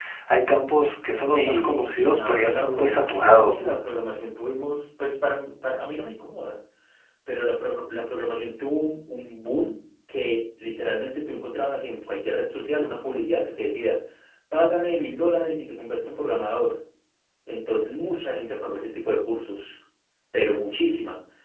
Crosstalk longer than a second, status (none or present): present